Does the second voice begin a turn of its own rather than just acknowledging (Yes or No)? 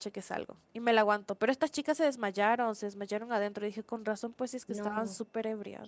Yes